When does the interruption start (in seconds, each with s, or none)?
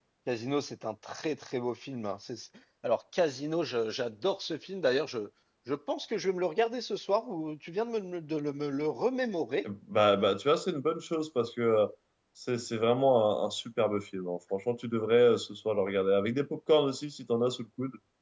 none